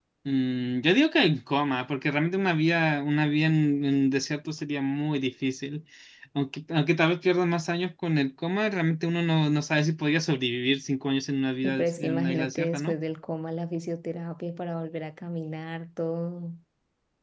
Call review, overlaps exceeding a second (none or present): present